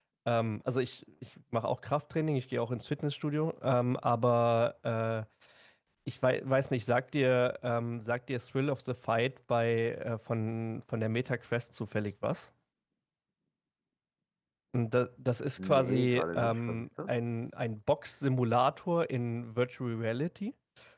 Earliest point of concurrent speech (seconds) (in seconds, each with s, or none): 15.6 s